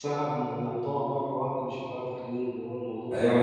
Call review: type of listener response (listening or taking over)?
taking over